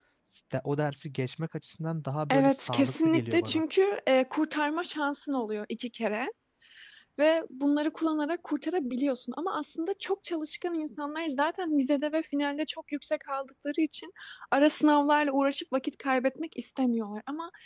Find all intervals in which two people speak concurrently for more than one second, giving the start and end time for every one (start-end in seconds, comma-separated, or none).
2.3-3.6